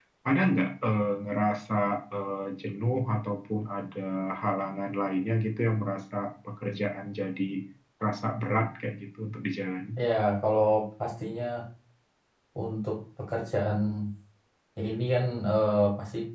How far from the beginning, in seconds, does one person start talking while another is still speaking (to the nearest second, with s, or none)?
none